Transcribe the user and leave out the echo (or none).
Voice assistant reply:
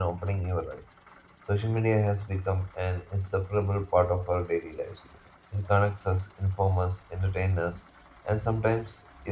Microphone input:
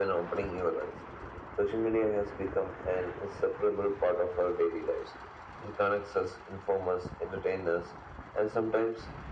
none